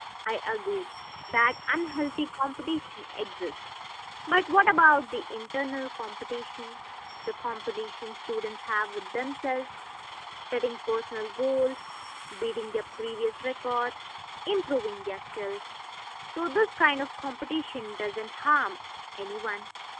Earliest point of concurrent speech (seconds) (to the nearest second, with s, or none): none